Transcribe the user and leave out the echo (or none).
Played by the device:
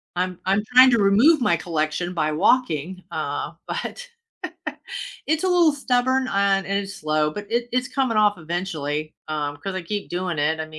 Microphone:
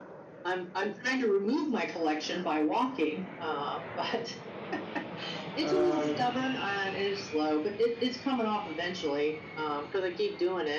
Oh, yeah,